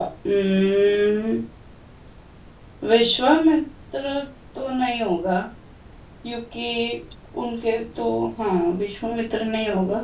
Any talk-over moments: No

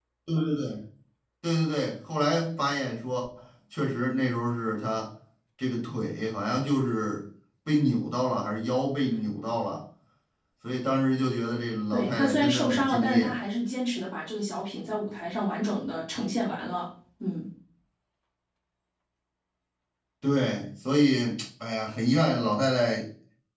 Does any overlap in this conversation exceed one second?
Yes, from 11.9 s

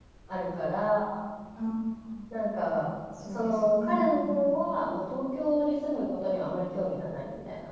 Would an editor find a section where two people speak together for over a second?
Yes, from 3.3 s

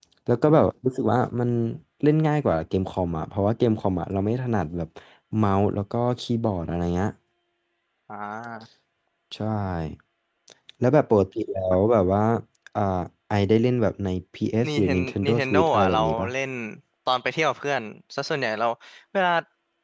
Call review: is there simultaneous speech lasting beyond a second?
Yes, from 14.6 s

